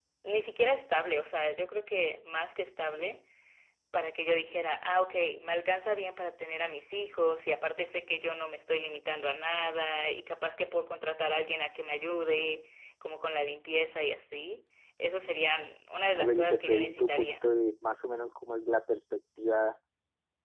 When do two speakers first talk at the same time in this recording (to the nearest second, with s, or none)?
16 s